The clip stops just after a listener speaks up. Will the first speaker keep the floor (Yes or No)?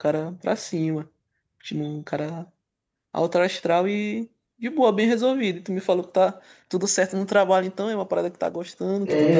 No